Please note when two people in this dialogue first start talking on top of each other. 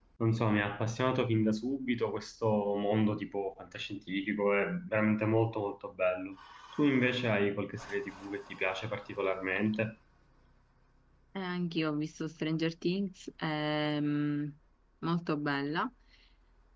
none

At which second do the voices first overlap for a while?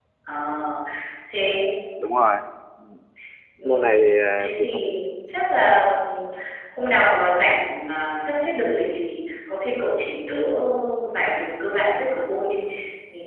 3.6 s

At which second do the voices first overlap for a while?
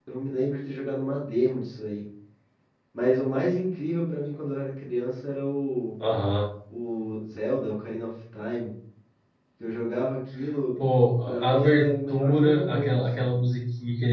11.3 s

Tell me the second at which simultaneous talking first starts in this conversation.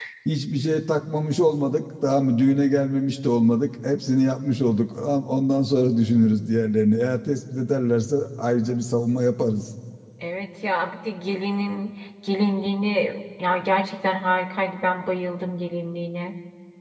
none

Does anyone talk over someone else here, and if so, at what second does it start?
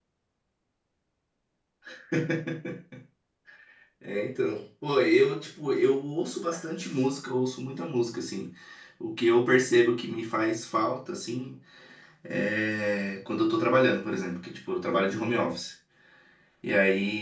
none

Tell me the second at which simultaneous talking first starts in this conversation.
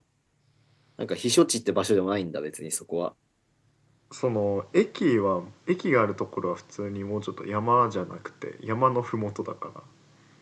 none

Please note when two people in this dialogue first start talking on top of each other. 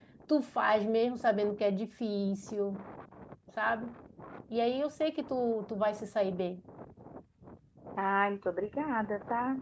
none

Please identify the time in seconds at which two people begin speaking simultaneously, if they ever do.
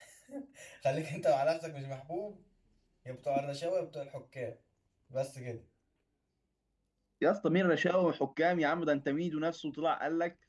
none

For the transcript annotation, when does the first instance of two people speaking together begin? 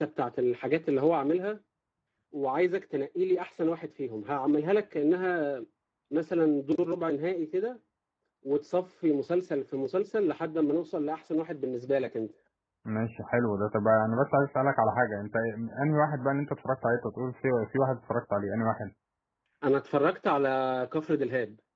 none

